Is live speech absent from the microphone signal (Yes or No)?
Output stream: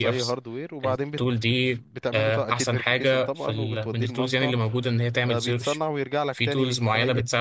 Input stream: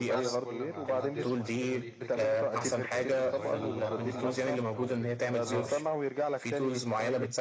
No